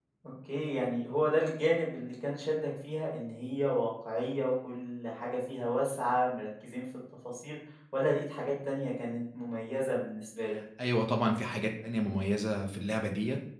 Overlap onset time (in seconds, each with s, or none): none